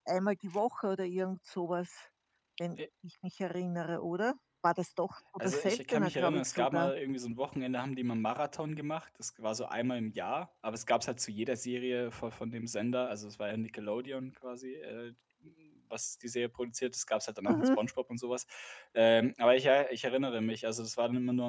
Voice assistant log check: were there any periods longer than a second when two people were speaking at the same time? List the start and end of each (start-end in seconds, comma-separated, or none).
5.4-6.9